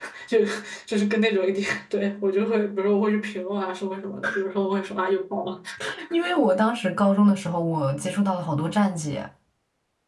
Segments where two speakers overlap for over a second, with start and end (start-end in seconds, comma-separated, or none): none